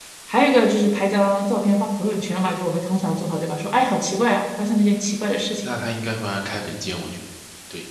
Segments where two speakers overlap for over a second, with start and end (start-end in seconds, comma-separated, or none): none